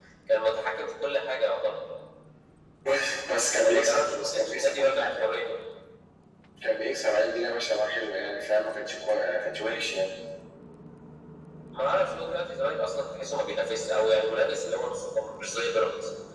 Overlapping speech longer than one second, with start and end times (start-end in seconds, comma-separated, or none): 3.6-5.2